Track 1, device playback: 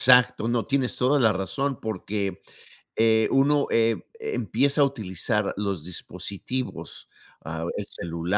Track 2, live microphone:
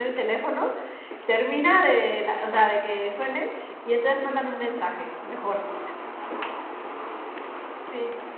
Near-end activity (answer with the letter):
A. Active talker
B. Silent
A